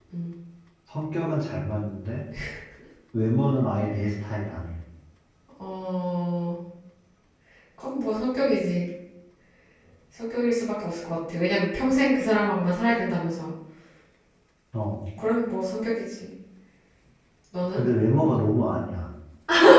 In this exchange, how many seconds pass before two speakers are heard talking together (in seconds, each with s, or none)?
none